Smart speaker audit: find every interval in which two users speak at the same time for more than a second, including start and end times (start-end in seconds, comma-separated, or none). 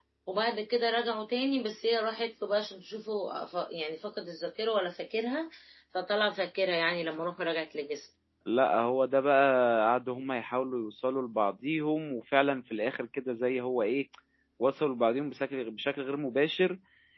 none